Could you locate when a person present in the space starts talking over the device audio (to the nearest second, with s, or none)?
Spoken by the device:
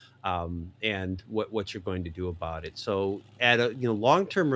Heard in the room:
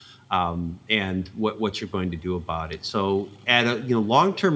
none